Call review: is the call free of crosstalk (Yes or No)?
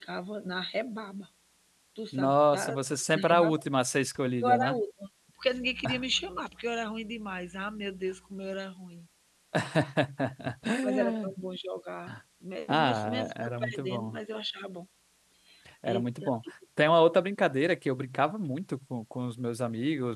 No